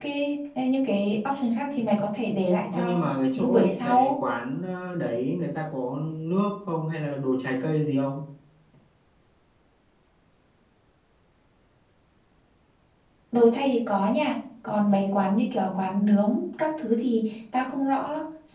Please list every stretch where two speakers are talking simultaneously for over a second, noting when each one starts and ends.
2.7-4.2

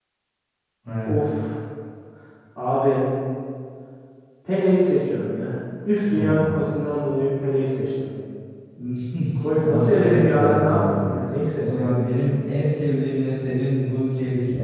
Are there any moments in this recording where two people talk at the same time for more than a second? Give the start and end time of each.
9.6-11.1

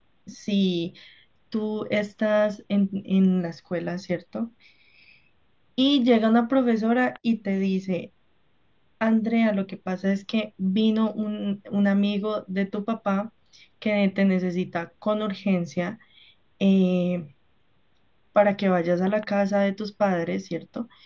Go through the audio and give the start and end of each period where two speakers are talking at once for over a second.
none

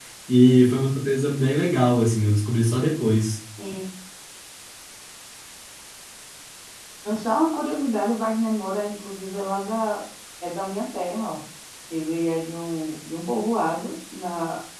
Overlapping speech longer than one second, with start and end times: none

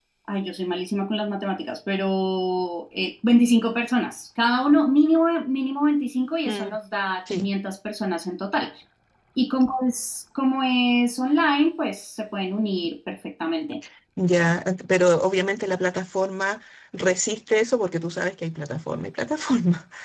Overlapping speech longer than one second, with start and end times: none

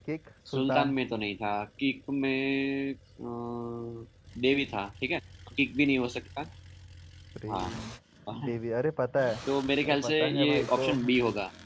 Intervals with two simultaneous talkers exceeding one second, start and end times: 9.8-11.1

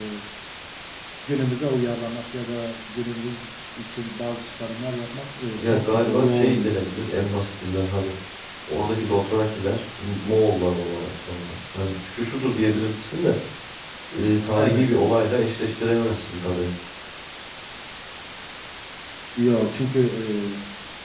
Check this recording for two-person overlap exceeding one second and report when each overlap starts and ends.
5.6-6.8

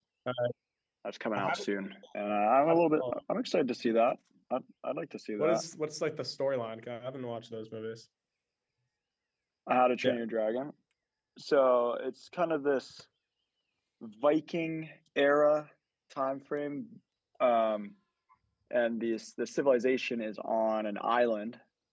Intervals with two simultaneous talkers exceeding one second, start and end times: none

